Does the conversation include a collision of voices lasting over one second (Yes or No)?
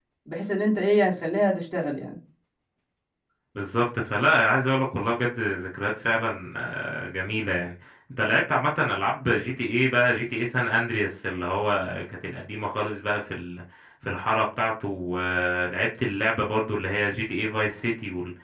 No